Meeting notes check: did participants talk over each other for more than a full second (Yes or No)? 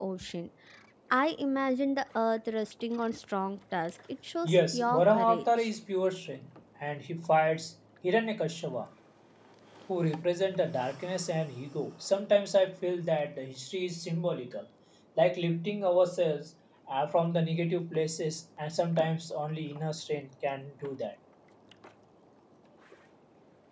Yes